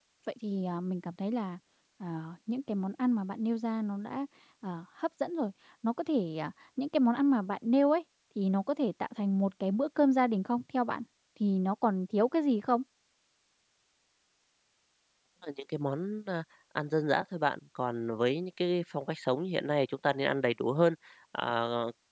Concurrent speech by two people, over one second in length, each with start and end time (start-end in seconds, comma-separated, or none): none